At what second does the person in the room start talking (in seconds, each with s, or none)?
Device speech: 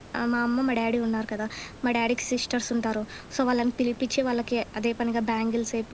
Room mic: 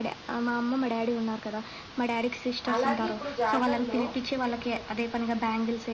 2.7 s